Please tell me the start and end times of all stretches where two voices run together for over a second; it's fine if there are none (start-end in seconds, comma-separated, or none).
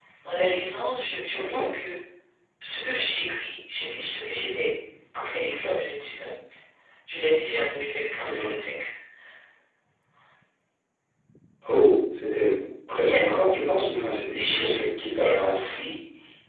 14.3-15.7